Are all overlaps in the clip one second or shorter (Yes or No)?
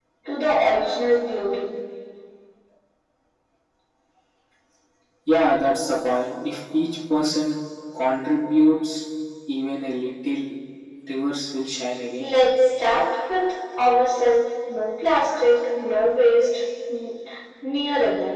Yes